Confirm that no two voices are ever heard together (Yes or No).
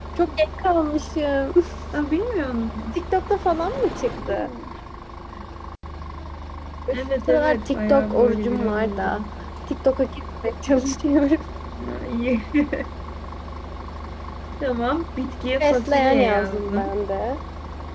No